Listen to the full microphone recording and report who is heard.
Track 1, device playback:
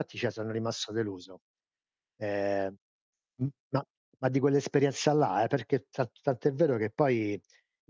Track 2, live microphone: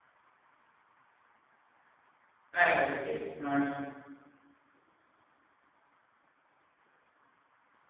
user only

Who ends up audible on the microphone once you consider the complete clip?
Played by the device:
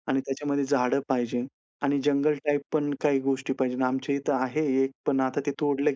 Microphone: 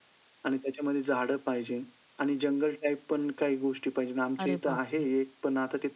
both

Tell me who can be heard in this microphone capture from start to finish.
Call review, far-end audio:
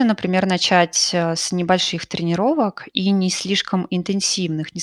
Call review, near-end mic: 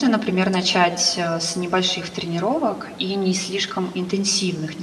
echo only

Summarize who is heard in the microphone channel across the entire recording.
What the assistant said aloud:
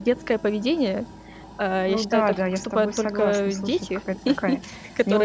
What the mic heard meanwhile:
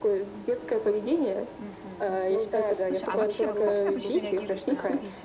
both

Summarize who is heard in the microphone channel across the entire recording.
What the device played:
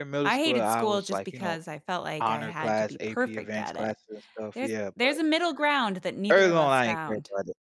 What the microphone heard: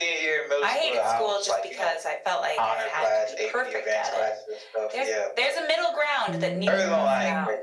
both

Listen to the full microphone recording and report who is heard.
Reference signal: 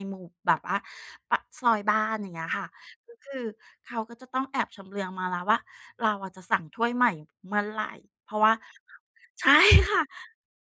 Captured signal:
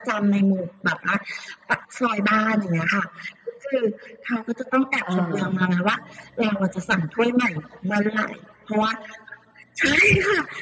both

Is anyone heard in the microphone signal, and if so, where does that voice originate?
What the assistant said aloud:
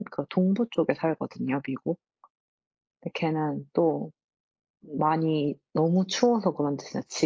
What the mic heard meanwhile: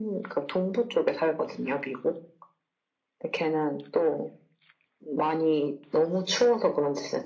echo only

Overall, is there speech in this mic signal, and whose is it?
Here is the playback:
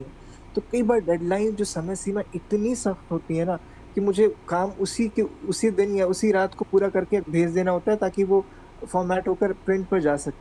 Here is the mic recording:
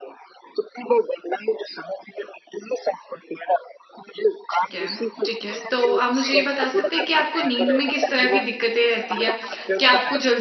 both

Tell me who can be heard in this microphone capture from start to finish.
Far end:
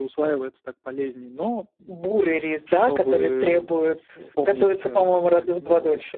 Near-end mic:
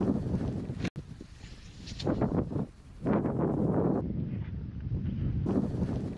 neither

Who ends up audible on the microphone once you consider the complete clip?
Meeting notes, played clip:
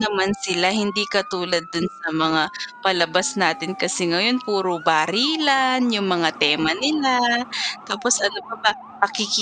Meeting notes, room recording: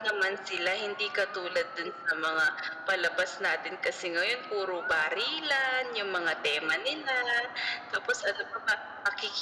echo only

